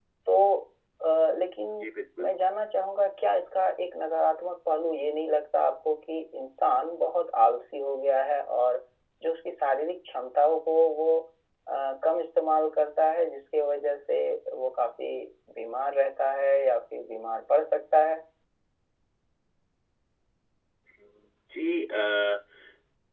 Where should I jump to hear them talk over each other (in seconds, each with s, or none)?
none